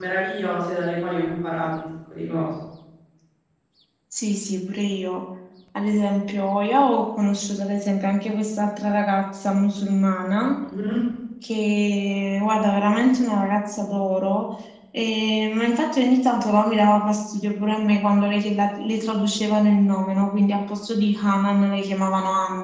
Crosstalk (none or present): none